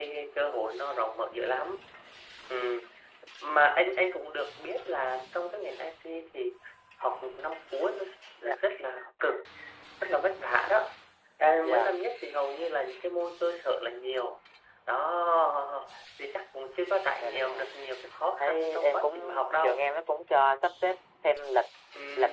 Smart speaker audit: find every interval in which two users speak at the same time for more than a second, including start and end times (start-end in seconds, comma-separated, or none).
18.4-19.8